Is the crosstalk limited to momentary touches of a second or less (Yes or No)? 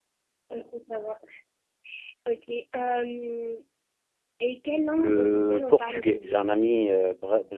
No